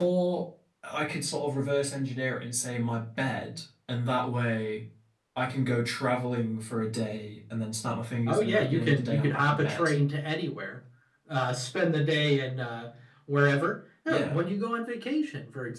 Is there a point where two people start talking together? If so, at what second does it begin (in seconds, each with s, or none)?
8.3 s